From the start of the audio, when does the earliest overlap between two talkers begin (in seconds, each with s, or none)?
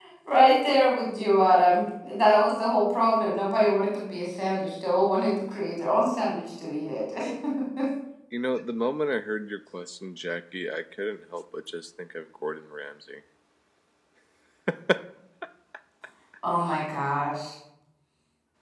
none